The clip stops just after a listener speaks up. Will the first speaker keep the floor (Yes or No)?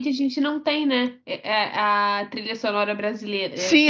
No